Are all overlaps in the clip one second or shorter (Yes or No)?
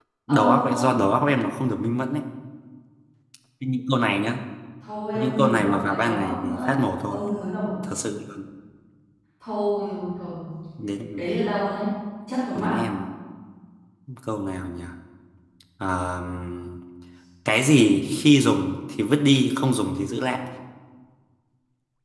No